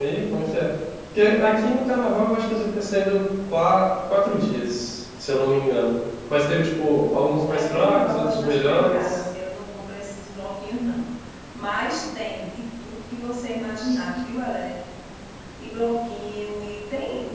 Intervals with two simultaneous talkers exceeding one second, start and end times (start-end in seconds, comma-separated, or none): 7.5-9.2